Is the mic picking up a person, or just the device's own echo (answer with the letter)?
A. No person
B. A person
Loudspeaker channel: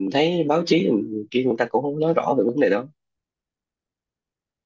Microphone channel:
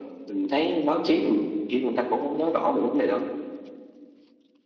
A